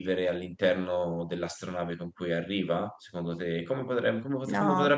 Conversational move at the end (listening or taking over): taking over